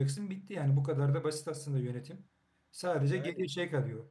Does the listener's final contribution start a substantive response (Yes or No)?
No